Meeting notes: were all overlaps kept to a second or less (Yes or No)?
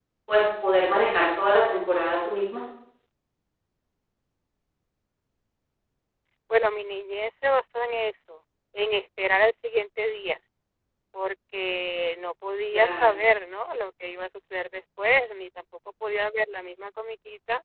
Yes